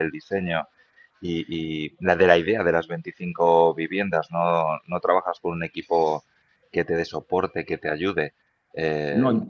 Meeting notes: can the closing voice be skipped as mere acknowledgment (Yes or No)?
Yes